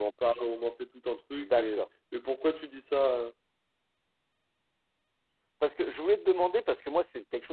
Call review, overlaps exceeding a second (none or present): none